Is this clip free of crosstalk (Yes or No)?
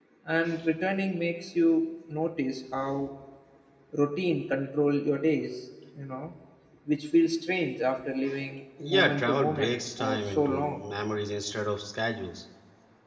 No